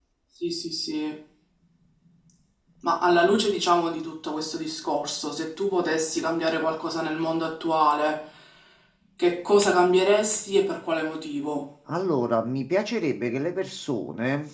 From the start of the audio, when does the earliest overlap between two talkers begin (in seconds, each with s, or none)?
none